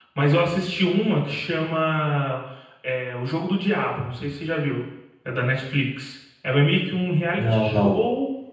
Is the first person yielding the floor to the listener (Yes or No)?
No